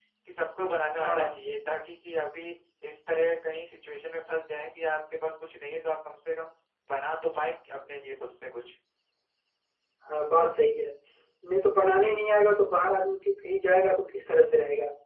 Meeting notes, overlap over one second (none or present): none